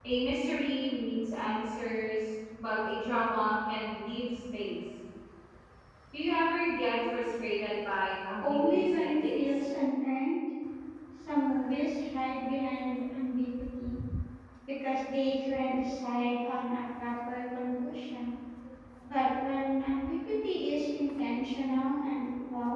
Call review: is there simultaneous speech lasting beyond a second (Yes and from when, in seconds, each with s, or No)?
Yes, from 8.4 s